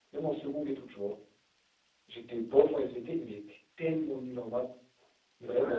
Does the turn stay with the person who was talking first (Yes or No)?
No